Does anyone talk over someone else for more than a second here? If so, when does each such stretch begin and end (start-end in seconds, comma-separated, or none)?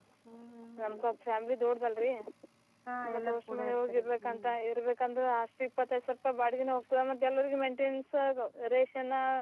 3.1-4.5